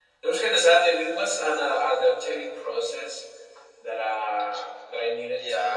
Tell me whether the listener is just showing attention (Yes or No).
No